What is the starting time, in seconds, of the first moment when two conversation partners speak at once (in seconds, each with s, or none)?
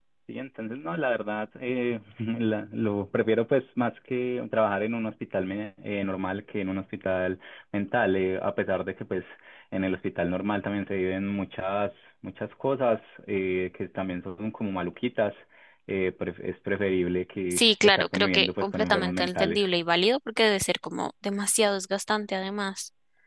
17.5 s